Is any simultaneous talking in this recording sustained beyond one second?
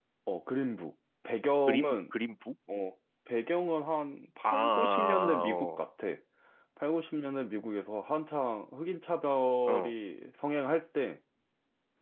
Yes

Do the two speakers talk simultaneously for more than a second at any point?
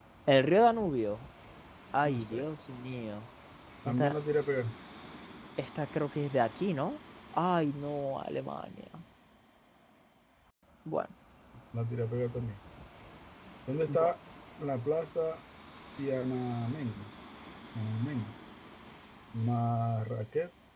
No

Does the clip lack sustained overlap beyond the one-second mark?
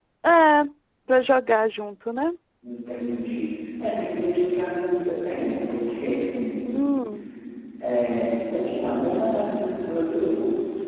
Yes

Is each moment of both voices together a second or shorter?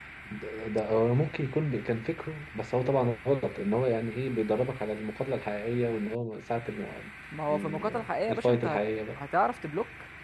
No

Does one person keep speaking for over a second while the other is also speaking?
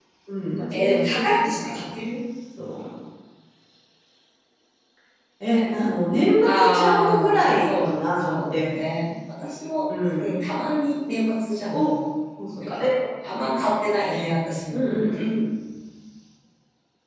Yes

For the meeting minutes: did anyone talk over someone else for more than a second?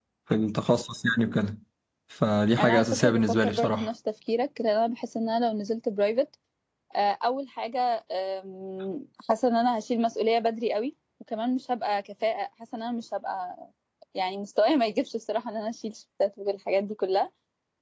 Yes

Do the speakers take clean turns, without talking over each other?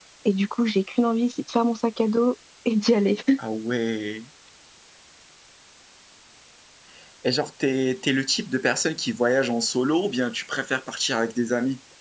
Yes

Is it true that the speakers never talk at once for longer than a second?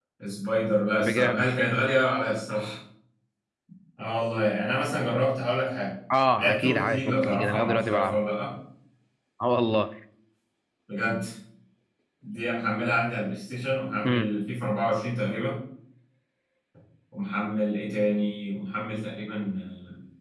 No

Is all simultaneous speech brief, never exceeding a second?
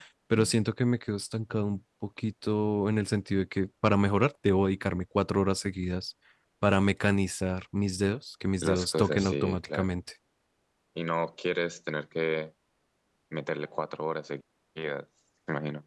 No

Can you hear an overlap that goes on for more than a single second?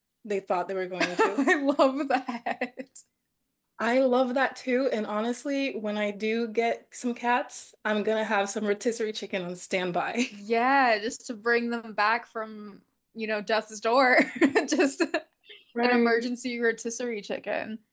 No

